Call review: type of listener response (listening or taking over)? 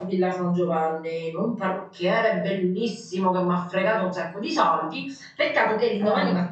listening